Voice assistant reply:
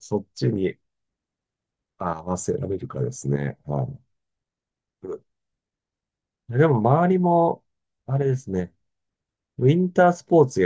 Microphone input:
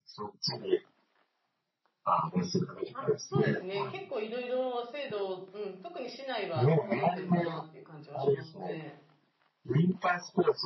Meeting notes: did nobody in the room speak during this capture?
No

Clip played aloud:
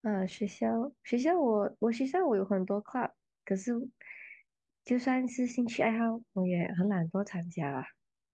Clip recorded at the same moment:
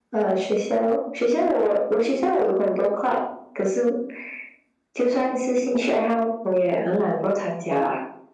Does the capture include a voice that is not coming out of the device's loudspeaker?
No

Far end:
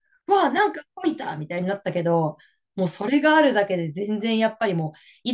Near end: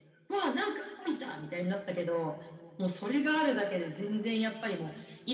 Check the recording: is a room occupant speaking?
No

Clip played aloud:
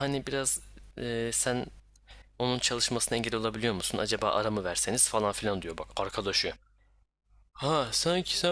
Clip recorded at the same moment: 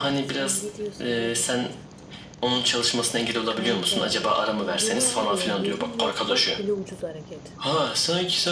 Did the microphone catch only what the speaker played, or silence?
No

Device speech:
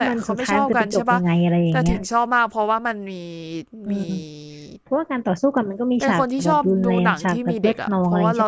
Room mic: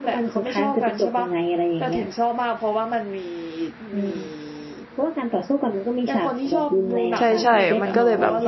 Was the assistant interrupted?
Yes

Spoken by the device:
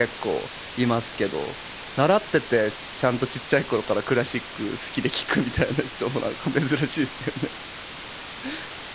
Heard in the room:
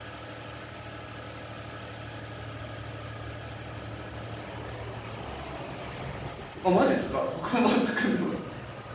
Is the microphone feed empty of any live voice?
No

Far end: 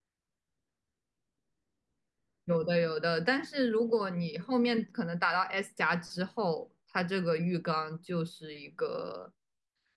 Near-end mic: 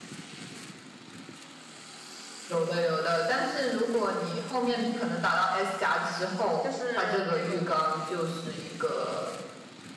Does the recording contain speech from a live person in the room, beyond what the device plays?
Yes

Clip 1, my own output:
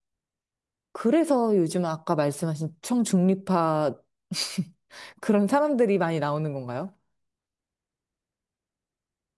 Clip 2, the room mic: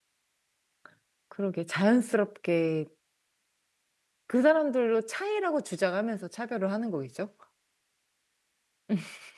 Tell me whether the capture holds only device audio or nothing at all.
No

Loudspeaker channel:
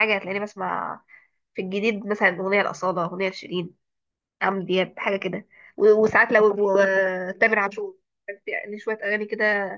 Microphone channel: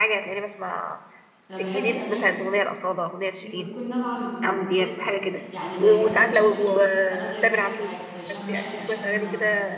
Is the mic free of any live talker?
No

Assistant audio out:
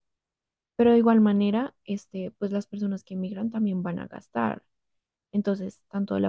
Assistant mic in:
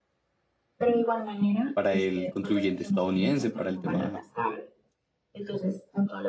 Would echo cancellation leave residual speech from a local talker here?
Yes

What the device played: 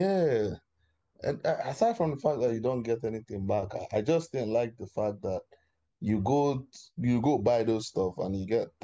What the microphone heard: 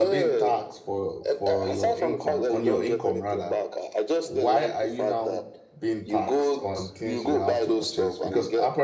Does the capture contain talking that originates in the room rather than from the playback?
Yes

